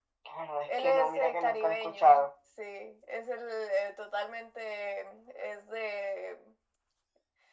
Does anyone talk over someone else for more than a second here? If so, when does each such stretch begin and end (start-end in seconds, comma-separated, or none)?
0.7-2.3